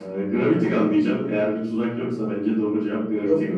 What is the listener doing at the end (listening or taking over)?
taking over